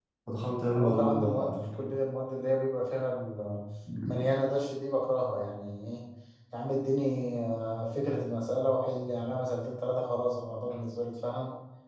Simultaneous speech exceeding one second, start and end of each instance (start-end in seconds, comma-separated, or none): 0.7-1.9